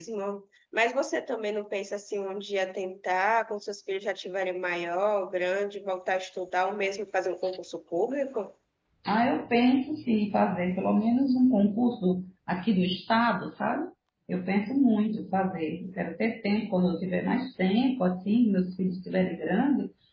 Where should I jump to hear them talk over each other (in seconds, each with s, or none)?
none